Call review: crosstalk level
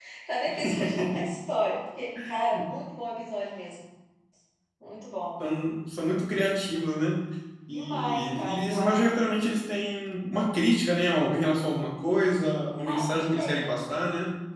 present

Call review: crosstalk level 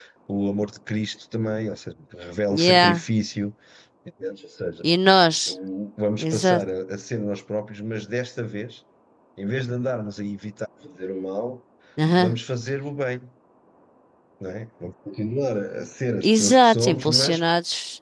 present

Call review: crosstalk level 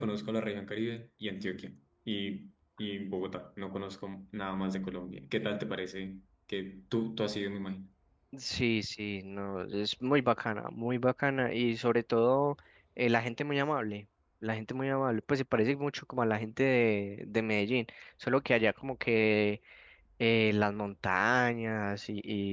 none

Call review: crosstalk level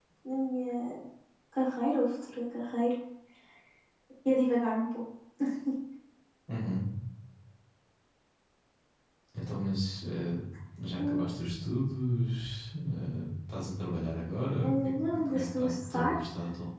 present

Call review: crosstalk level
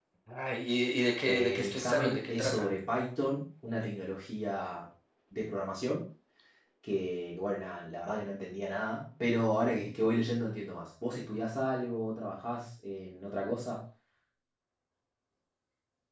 present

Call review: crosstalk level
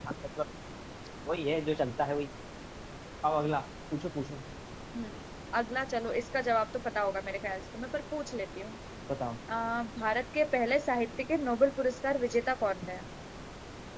none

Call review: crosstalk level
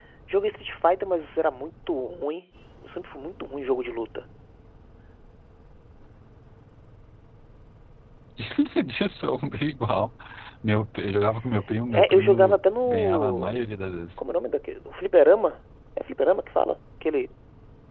present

